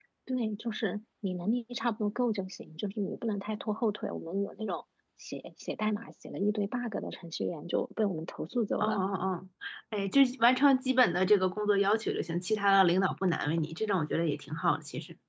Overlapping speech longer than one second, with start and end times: none

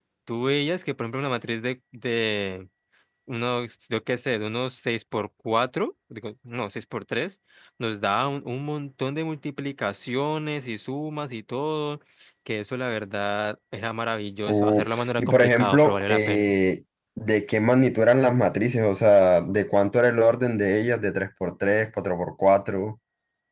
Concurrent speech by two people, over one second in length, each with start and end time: 14.5-16.5

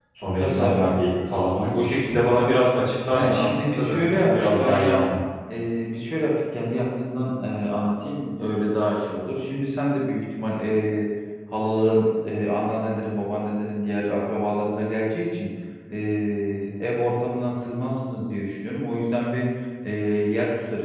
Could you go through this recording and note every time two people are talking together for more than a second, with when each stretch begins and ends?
3.2-5.0

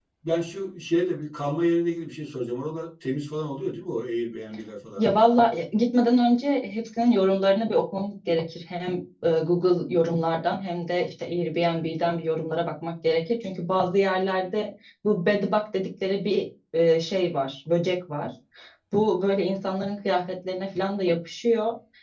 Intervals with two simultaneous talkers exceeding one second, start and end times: none

